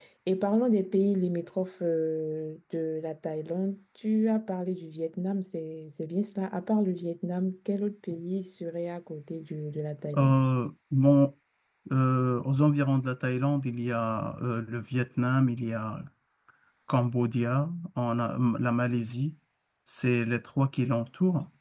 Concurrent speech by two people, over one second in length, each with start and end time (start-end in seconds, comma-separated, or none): none